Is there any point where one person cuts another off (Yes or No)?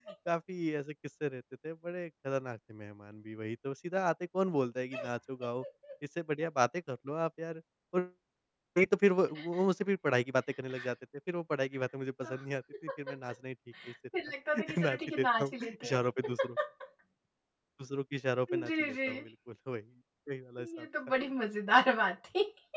Yes